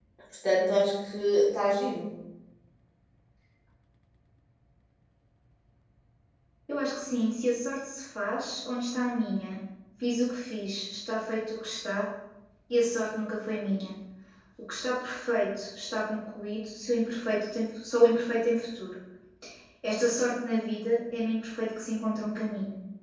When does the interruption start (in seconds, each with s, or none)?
none